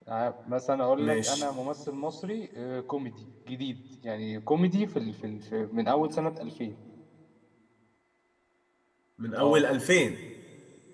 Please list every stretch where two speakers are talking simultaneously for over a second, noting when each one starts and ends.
none

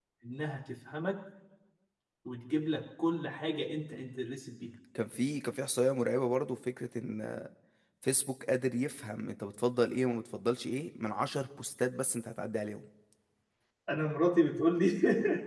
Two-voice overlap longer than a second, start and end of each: none

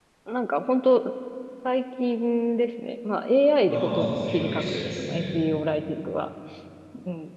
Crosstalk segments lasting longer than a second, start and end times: 3.7-5.4

